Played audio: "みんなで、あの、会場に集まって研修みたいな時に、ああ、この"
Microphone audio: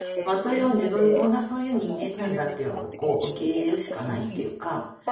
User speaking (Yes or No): Yes